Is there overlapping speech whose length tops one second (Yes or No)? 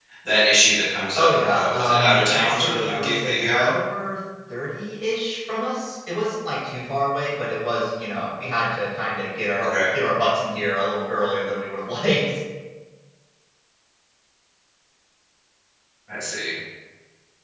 Yes